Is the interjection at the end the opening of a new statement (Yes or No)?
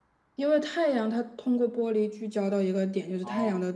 No